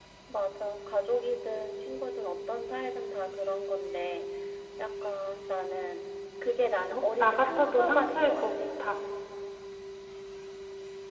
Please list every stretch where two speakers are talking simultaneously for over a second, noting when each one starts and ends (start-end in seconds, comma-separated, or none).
6.9-8.4